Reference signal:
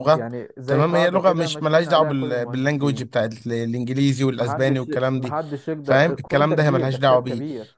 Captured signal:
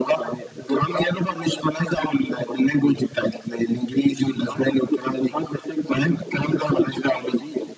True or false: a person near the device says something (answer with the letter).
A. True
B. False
B